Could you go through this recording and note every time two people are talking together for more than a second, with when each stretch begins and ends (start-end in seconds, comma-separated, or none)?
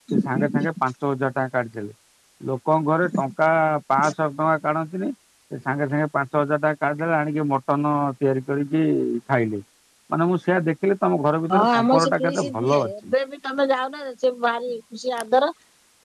11.5-13.1